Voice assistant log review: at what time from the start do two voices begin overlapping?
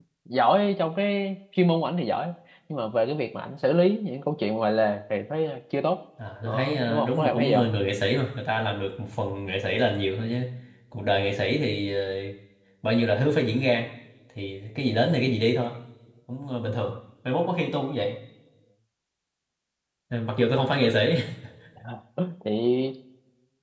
6 s

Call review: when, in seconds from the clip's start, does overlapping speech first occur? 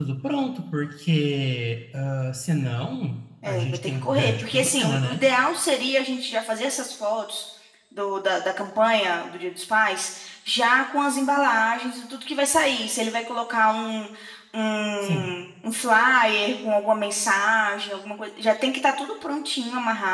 3 s

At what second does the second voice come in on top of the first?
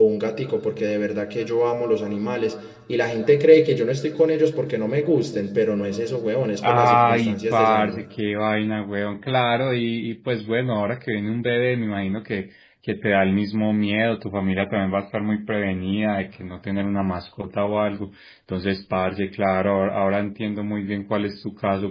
7 s

